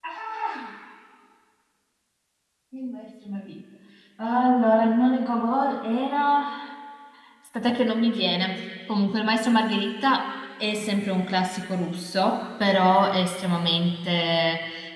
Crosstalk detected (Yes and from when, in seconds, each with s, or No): No